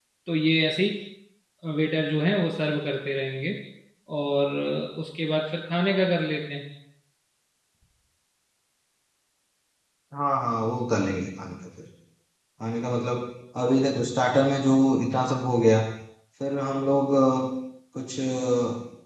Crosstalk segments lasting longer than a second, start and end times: none

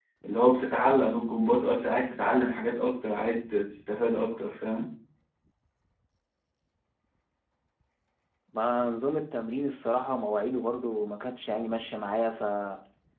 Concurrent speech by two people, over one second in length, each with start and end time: none

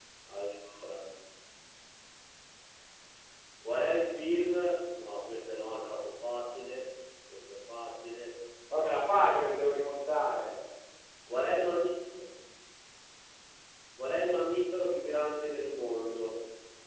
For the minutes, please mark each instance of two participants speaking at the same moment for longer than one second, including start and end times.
none

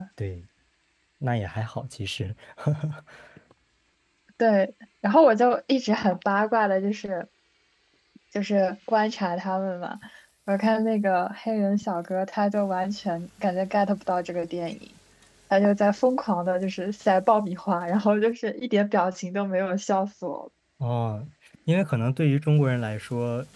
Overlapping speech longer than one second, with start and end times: none

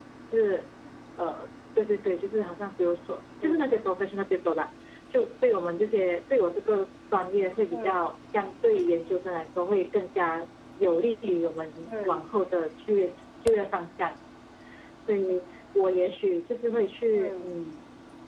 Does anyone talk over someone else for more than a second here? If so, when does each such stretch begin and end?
none

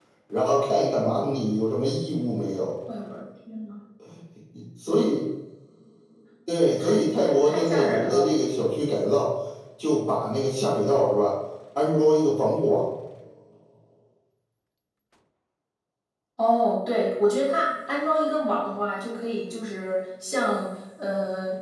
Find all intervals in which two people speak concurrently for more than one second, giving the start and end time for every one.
6.8-8.4

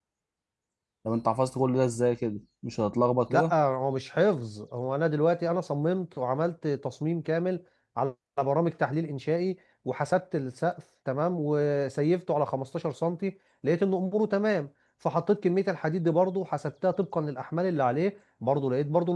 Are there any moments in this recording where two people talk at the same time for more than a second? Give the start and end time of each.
none

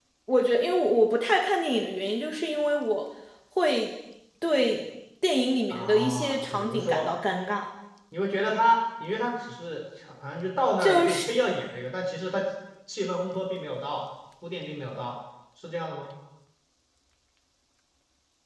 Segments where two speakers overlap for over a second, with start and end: 5.7-7.1

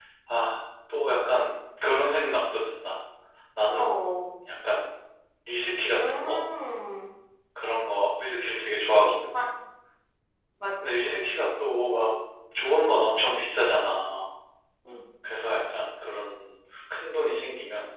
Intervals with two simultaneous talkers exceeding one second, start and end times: none

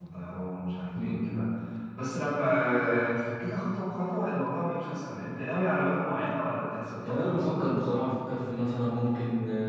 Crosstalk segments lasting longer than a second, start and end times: none

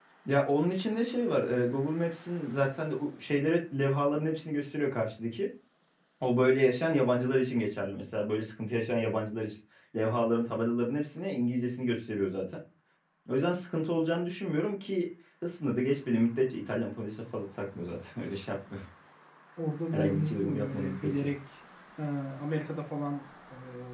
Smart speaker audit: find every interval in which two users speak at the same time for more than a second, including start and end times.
19.9-21.3

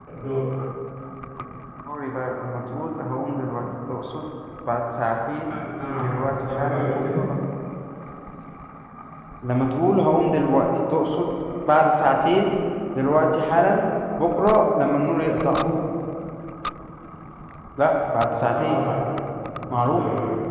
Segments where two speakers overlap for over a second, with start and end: 6.0-7.2

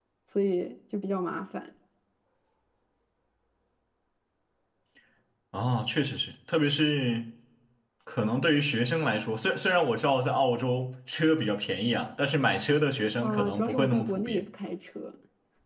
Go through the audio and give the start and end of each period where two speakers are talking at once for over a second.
13.2-14.4

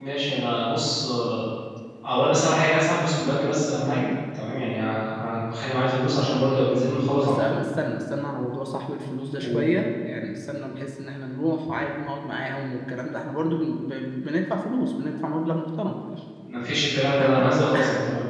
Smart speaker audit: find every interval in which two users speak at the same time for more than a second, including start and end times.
none

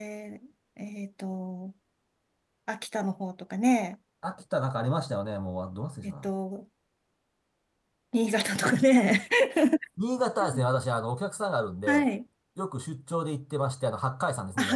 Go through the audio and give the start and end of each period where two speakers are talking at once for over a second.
none

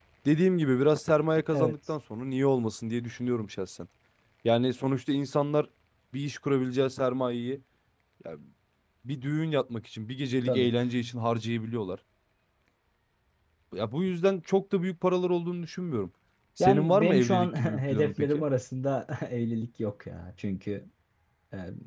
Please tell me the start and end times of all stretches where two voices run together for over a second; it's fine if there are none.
16.6-18.4

